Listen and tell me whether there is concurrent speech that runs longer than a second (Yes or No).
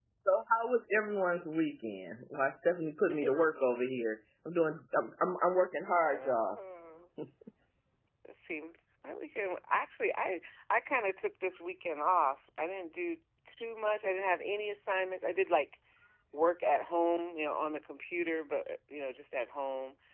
No